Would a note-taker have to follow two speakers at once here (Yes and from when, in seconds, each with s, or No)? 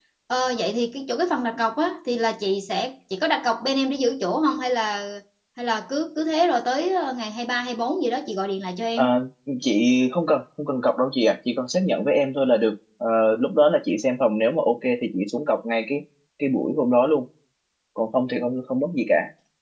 No